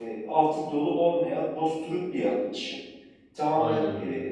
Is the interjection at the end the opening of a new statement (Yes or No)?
No